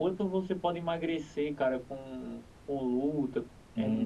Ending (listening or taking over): taking over